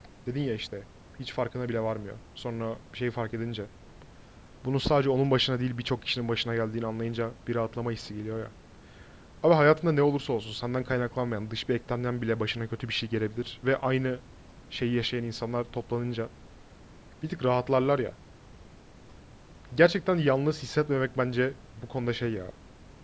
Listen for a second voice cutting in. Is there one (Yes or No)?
No